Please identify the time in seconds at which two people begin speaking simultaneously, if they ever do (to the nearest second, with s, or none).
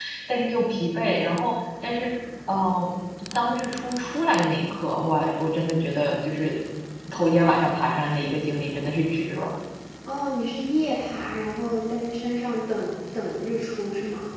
none